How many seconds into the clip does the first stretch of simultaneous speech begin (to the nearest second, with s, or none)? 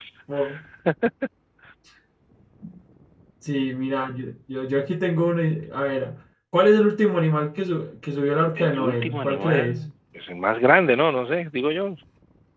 9 s